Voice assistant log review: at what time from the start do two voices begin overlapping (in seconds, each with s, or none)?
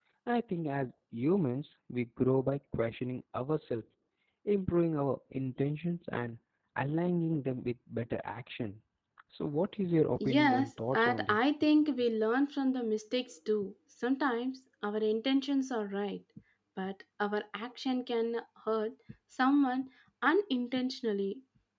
10.2 s